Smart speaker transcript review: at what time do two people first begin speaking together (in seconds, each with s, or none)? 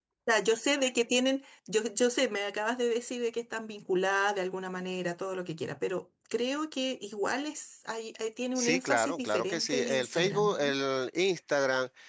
8.6 s